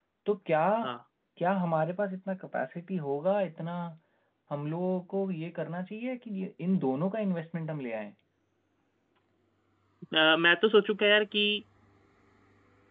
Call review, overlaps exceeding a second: none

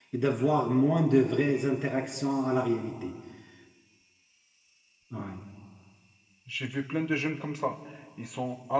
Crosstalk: none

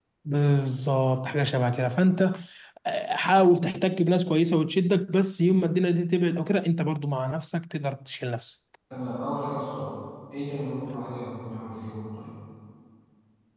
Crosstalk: none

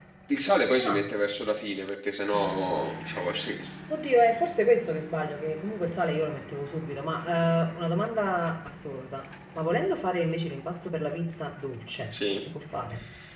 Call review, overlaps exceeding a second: none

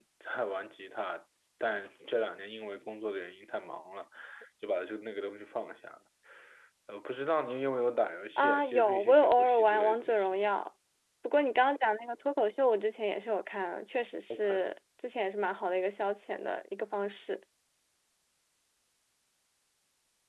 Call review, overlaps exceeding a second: present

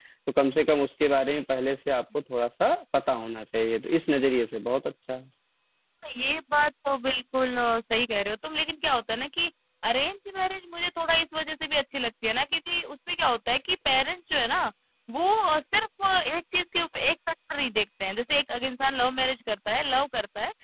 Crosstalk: none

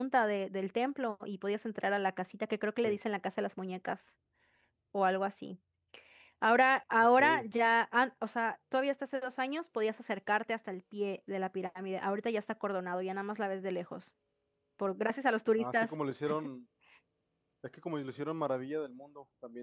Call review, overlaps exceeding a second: none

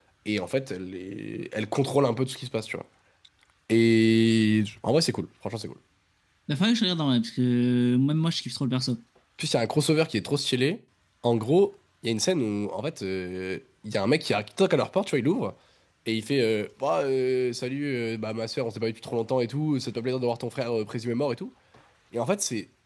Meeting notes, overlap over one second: none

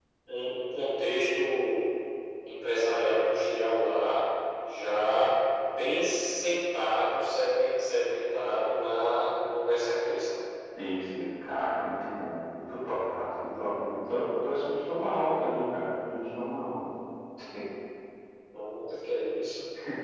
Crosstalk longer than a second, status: none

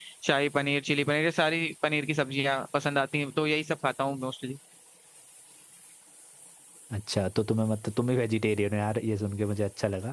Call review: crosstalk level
none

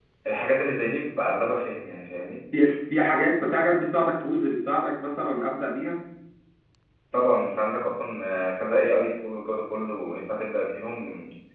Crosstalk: none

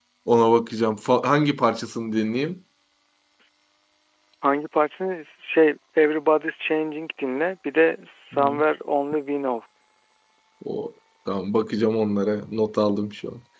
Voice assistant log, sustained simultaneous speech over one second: none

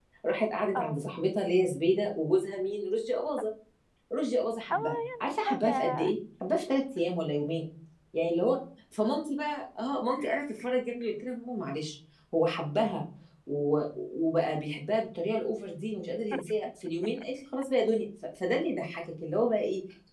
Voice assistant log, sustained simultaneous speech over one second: present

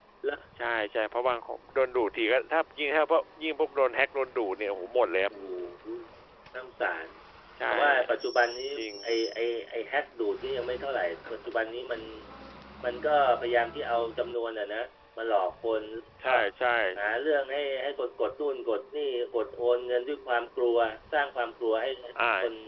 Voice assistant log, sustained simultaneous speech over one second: none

